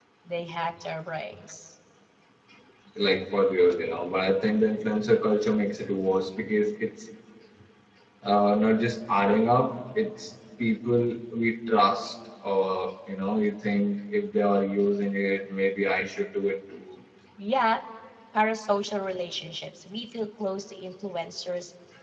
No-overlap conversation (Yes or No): Yes